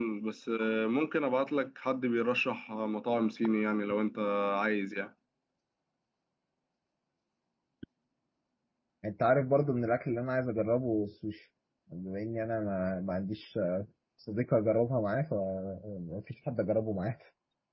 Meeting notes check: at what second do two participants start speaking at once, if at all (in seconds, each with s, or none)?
none